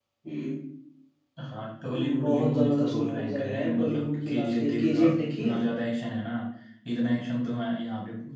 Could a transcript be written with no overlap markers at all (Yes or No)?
No